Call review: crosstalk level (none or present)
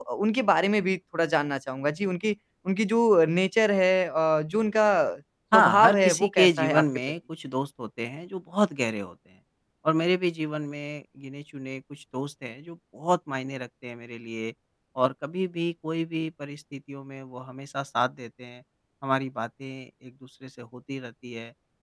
present